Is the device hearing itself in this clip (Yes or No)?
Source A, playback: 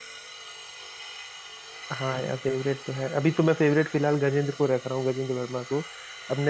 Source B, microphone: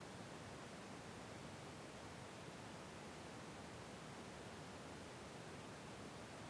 No